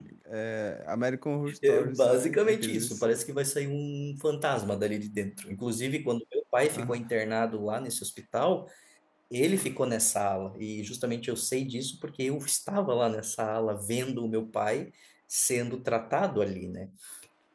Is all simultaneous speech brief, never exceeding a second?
No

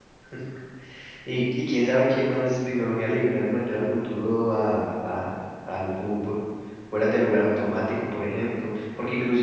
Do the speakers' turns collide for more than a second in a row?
No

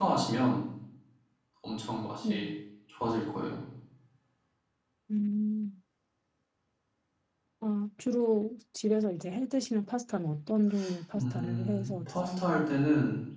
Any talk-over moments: Yes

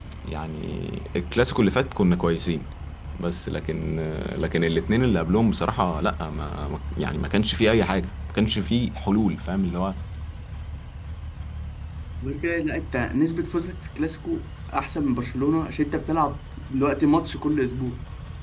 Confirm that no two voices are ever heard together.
Yes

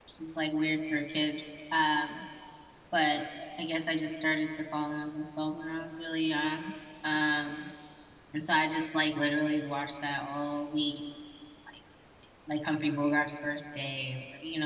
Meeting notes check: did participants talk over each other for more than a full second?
No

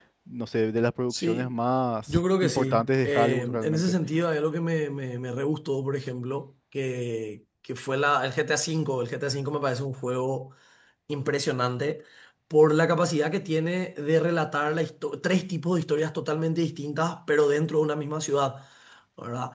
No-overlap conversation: No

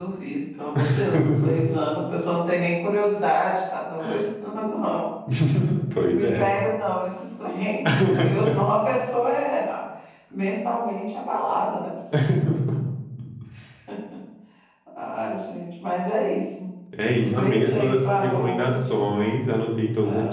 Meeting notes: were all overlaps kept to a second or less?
No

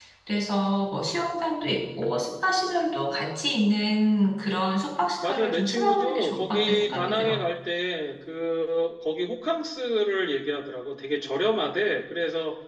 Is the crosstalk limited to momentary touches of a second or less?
No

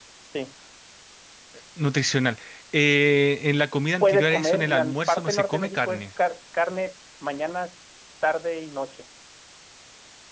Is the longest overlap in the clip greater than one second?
Yes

